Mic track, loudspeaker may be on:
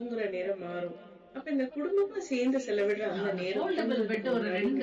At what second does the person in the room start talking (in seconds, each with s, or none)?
3.1 s